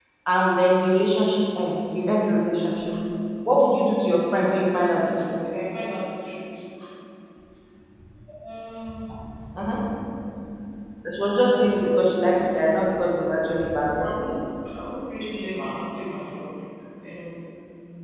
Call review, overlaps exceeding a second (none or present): none